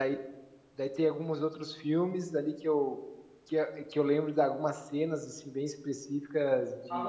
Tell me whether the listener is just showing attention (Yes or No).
No